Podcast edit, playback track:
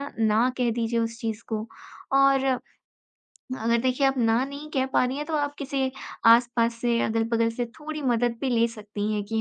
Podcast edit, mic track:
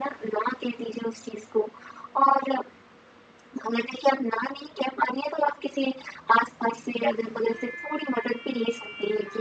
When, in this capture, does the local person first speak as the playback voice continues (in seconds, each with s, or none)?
none